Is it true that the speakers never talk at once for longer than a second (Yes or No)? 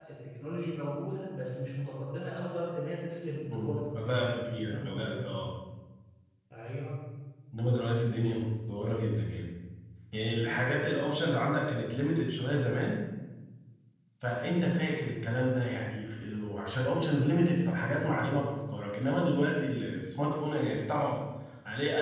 No